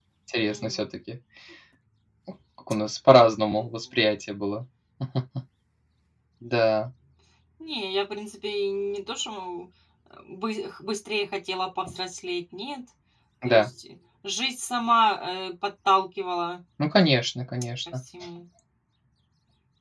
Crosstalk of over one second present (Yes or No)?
No